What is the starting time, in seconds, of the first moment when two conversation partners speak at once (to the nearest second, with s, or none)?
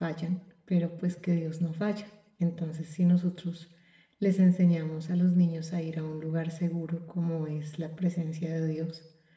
none